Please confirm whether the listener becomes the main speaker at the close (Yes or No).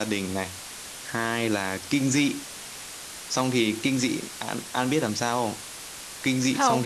No